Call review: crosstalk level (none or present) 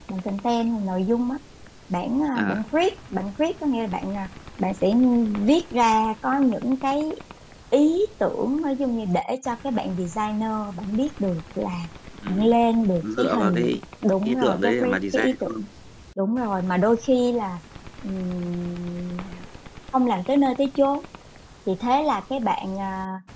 present